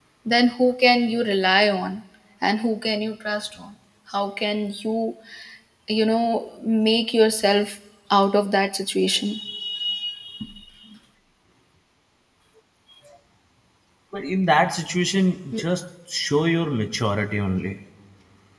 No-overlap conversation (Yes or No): Yes